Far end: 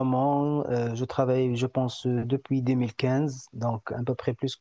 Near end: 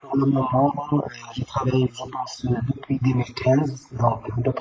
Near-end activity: none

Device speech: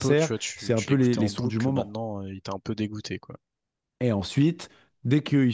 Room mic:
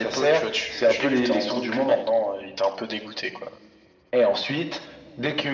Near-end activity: none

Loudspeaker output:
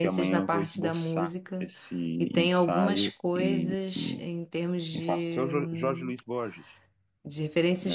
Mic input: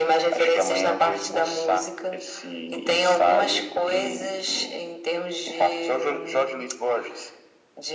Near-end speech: none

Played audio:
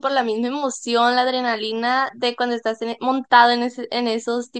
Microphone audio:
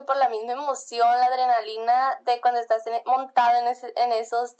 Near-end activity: none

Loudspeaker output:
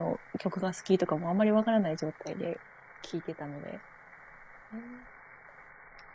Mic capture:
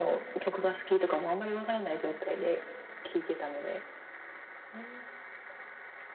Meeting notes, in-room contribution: none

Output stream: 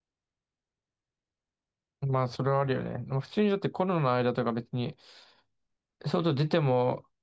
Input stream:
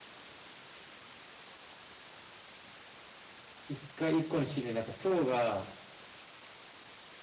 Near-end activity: present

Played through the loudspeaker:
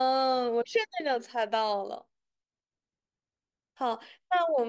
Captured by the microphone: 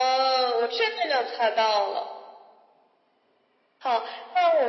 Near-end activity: none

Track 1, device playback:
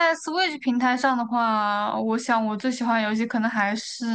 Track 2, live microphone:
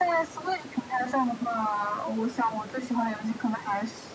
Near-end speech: none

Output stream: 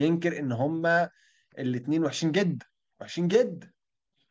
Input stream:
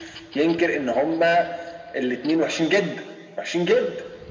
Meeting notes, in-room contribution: none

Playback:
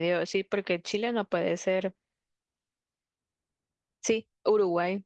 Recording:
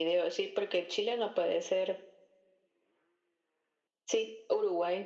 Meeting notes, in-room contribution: none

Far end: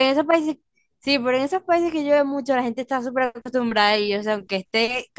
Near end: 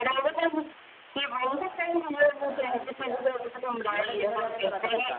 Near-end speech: present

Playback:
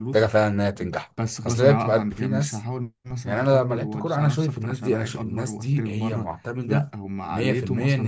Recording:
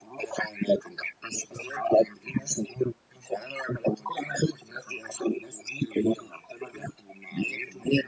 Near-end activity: none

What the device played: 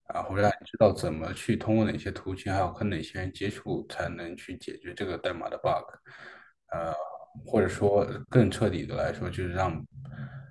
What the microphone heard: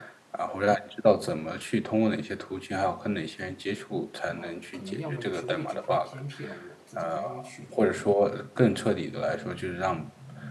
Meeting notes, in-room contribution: present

